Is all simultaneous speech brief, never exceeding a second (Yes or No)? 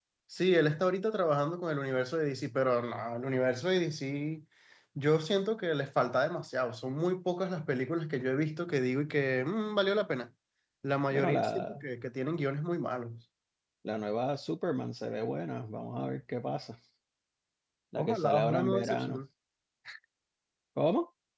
No